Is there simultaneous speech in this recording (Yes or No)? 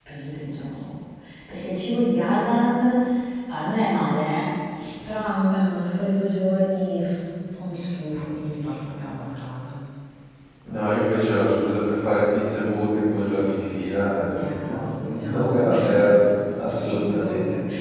Yes